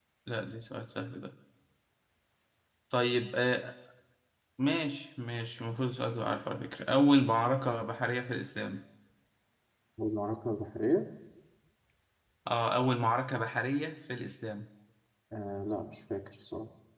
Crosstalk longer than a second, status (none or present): none